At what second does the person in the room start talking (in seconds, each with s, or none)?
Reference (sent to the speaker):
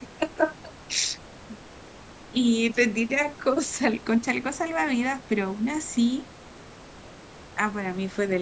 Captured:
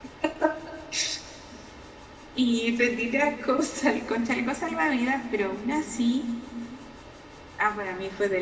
none